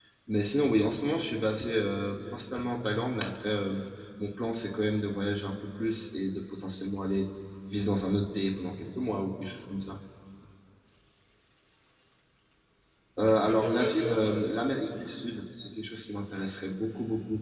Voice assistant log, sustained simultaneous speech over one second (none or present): present